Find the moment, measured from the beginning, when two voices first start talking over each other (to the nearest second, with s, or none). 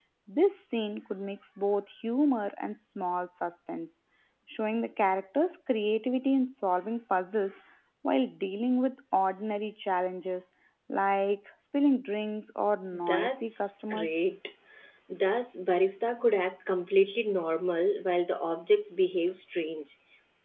13 s